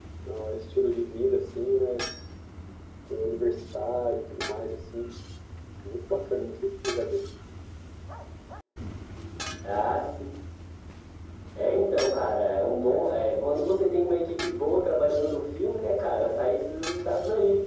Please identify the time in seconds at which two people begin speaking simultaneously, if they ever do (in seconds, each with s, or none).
none